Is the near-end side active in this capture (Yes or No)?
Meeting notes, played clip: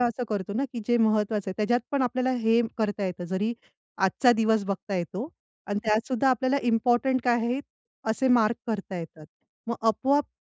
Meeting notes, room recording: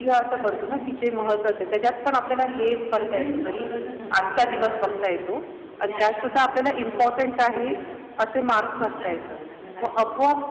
Yes